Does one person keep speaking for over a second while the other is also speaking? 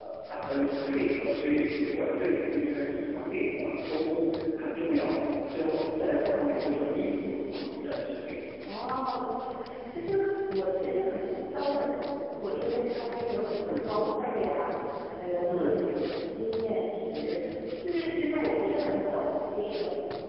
No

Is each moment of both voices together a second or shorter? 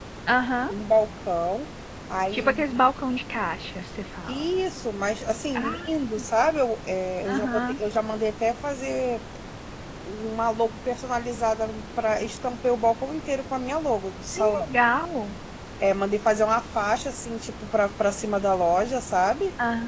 Yes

